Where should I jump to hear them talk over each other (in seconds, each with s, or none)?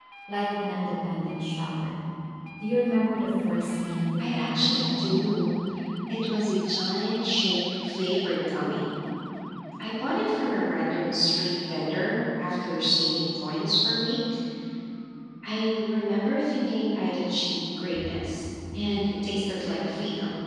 4.2 s